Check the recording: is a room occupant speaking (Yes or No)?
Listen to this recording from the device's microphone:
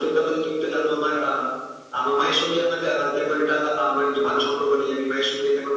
No